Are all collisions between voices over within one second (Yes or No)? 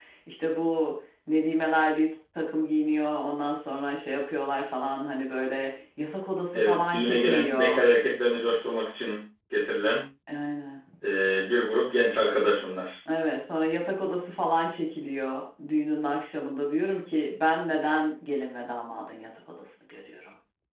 No